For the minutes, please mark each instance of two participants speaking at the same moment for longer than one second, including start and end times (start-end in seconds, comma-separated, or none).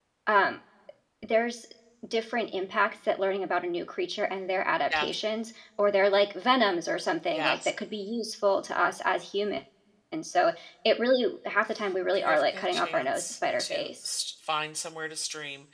12.1-14.1